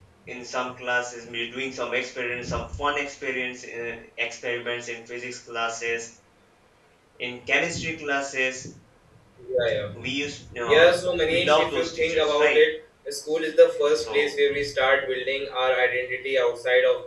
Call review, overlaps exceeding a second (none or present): present